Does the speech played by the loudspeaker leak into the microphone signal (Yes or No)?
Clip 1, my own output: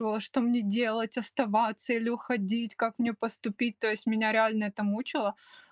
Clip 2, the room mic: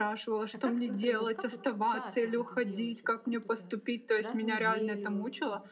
Yes